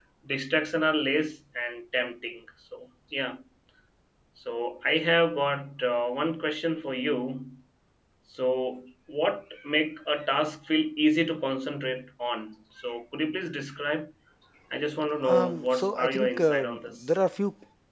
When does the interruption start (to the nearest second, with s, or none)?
15 s